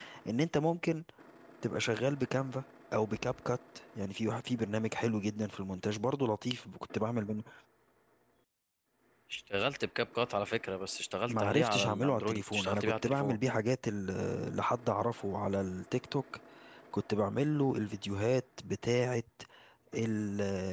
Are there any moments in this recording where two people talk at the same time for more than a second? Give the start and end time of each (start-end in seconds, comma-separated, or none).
11.3-13.4